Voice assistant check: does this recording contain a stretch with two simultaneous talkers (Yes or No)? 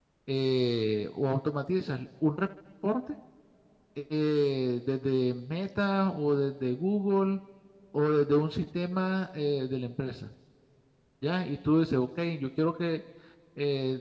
No